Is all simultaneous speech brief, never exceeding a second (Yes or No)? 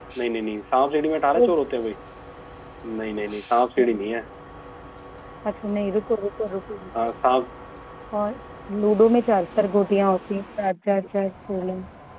Yes